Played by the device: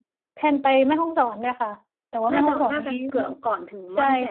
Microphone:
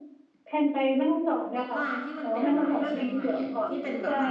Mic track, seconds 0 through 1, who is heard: echo only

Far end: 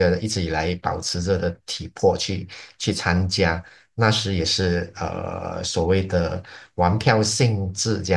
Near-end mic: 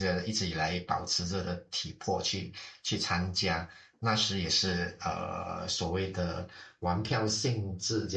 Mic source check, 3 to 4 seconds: echo only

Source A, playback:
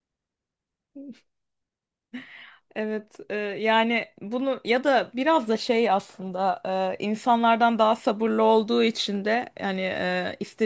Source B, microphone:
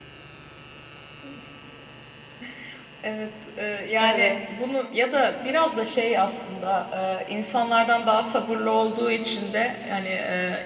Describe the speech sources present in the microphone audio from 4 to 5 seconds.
both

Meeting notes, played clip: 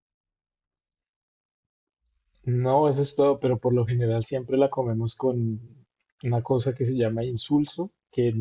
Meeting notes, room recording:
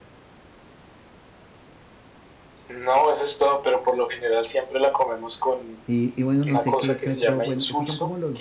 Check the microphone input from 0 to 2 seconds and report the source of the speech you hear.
neither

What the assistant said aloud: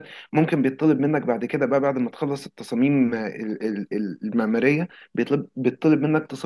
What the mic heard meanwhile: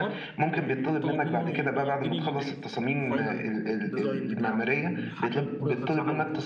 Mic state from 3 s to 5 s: both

